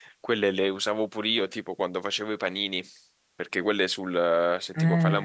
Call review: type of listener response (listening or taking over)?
listening